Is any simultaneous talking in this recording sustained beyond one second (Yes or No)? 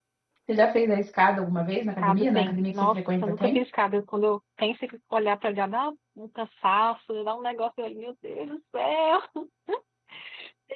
Yes